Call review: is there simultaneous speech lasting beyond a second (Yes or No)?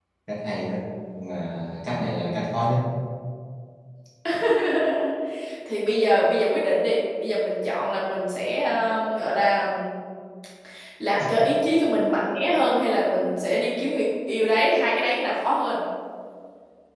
No